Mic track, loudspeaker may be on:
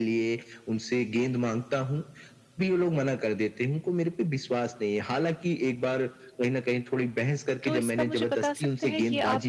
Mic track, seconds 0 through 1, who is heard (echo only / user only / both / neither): echo only